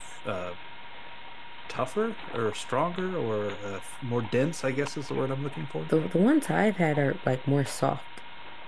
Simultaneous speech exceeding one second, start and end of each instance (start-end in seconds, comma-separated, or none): none